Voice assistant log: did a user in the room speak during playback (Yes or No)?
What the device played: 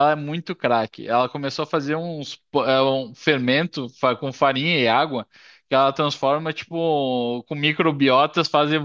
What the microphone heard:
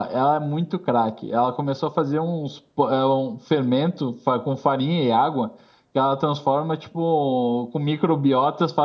No